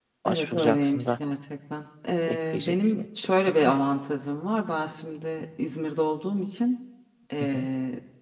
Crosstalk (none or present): present